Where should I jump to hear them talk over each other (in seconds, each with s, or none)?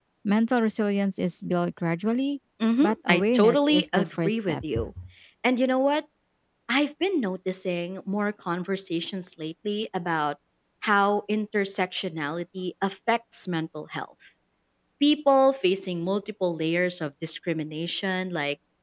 2.8 s